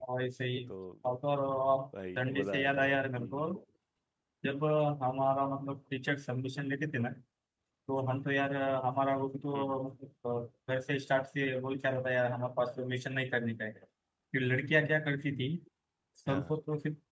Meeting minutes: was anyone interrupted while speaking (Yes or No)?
Yes